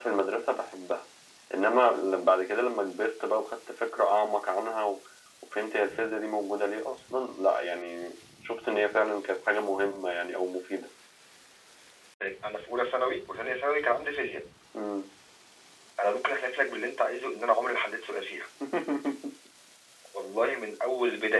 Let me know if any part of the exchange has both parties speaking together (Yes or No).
No